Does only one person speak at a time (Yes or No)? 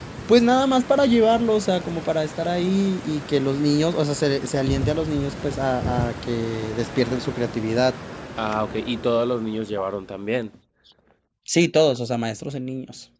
Yes